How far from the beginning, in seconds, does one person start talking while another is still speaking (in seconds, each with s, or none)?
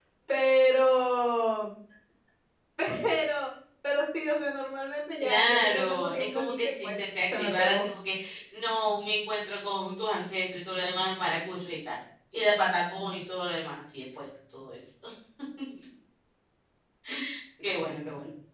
5.2 s